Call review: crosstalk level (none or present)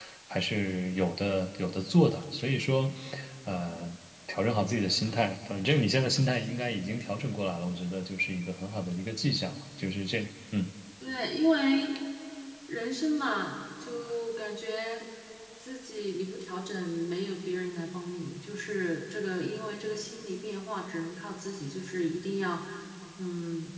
none